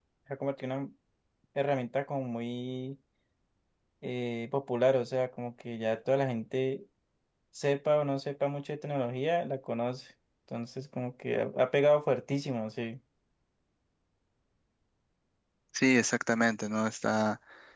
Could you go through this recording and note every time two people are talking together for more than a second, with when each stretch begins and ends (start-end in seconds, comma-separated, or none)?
none